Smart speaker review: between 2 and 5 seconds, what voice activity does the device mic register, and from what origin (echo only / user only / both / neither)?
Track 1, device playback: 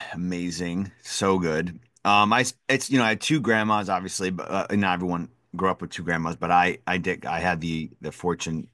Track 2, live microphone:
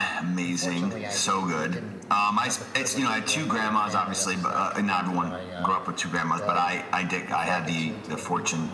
both